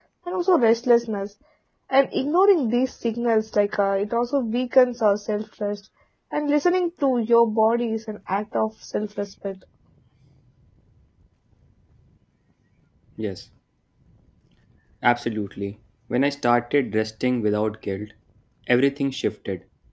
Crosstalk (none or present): none